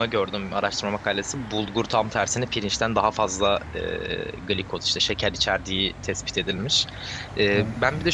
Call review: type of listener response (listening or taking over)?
listening